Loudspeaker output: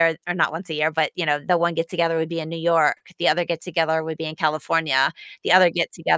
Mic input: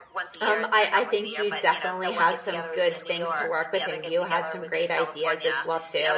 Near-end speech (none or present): present